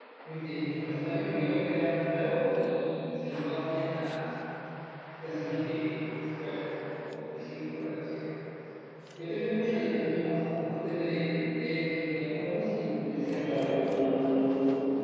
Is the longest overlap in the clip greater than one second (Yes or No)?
Yes